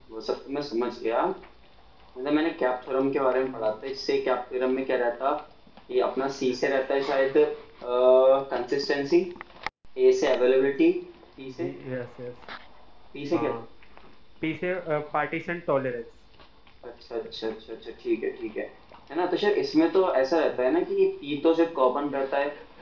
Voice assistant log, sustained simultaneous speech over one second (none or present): none